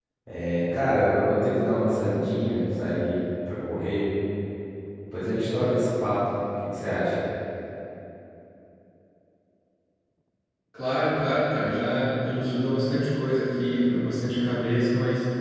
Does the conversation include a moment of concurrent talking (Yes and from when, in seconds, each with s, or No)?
No